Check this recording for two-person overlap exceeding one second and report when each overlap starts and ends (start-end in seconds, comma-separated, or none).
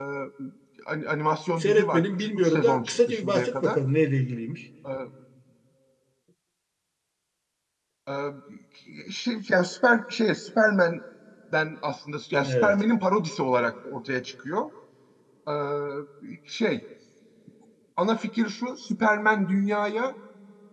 1.6-3.8